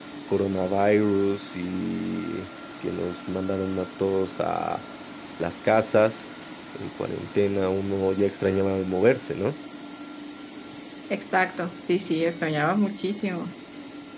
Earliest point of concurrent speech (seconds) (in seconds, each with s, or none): none